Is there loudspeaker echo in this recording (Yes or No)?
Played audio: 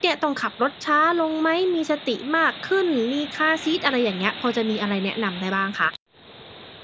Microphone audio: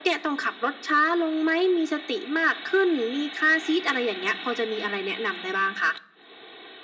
Yes